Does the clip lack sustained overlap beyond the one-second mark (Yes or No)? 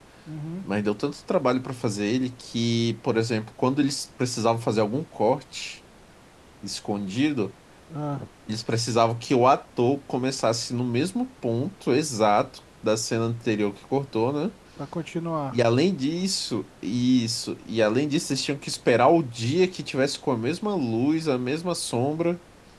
Yes